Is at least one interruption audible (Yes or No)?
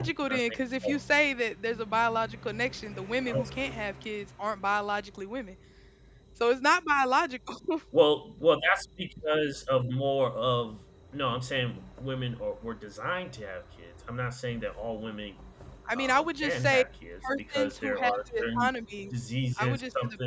Yes